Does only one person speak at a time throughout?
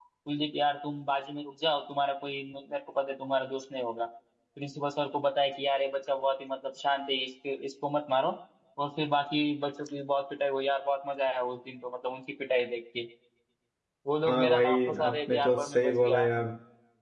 No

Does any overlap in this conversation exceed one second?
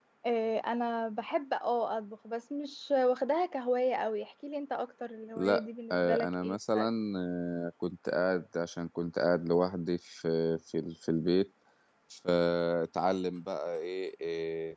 Yes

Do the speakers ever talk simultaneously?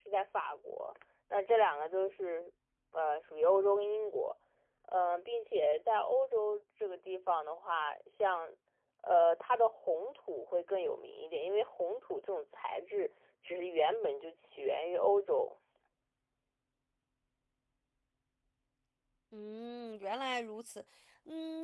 No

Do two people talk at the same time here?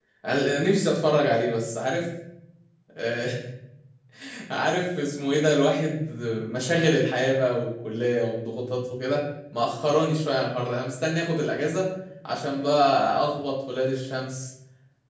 No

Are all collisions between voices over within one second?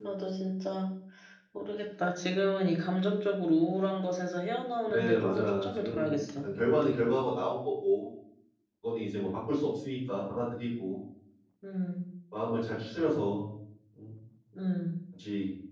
No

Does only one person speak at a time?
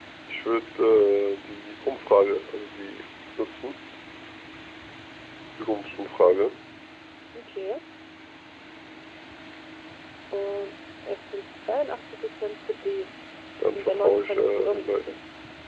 No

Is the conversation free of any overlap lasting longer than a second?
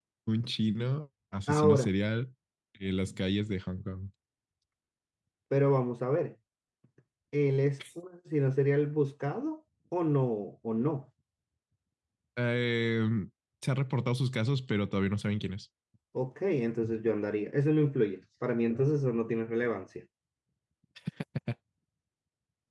Yes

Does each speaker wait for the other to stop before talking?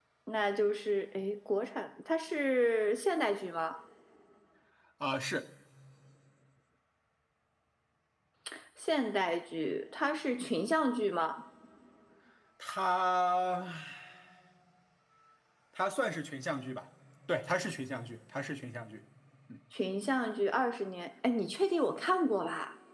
Yes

